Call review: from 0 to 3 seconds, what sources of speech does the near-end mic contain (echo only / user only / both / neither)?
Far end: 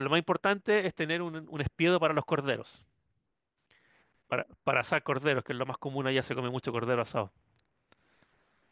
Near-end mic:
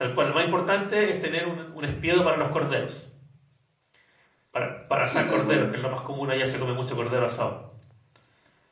echo only